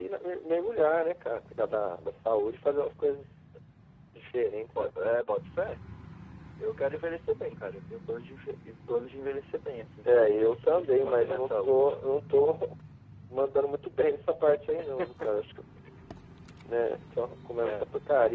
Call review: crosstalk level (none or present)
present